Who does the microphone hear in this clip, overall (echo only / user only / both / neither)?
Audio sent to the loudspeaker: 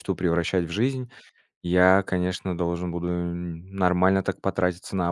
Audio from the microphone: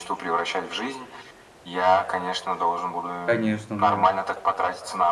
both